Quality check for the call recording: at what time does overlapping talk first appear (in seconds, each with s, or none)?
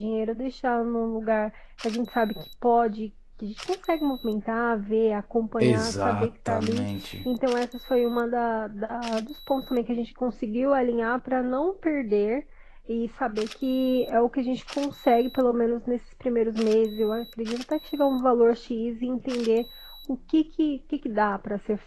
5.6 s